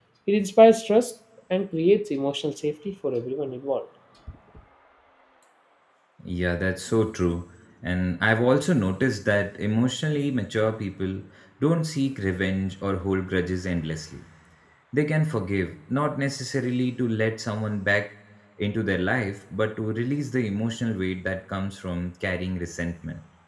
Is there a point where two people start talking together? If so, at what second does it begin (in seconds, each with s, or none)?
none